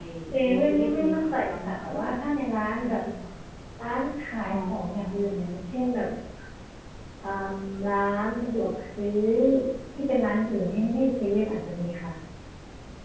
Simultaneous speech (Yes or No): Yes